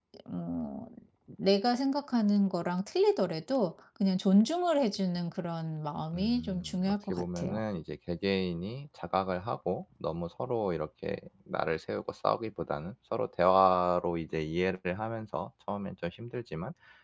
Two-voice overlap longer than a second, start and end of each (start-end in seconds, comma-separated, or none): 6.1-7.6